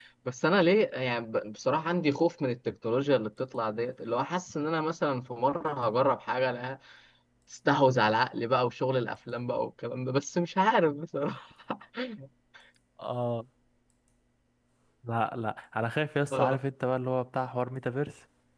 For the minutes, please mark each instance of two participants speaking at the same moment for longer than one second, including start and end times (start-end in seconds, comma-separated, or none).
none